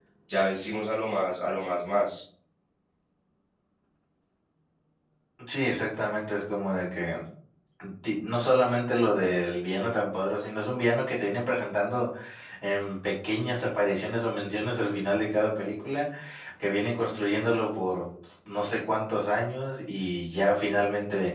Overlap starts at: none

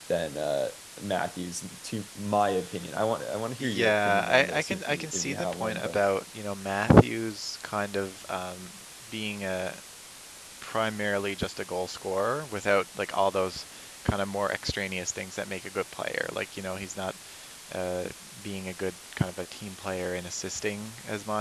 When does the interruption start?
4 s

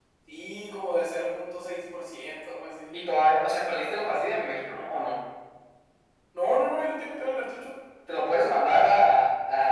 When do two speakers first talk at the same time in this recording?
none

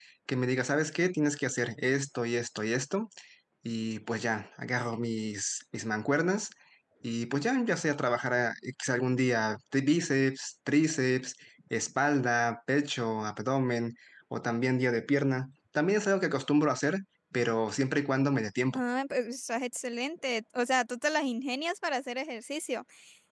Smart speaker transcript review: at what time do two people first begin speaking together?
none

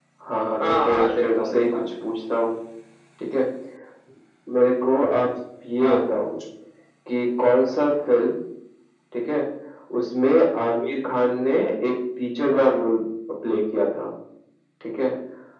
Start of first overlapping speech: 1 s

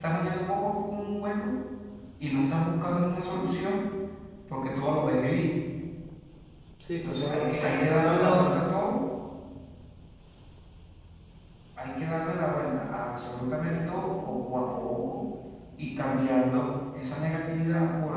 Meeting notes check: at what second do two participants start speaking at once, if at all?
7 s

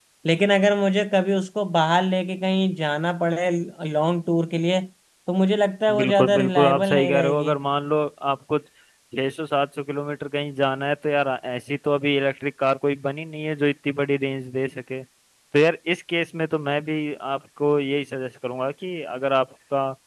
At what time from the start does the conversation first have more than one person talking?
6 s

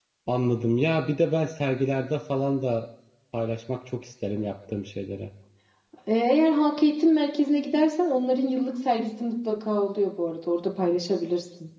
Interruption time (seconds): none

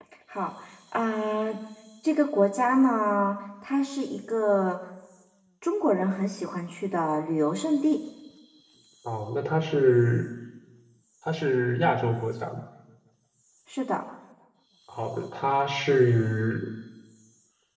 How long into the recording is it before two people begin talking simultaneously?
none

